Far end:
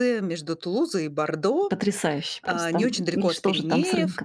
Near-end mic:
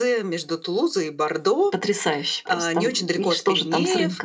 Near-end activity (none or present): none